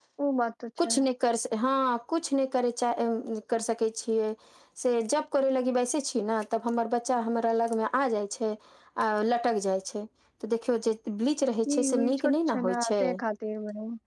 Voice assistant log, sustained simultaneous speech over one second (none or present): present